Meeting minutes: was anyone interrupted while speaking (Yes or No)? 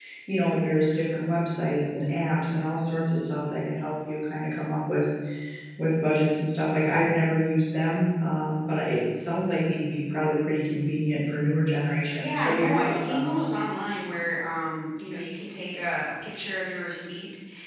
Yes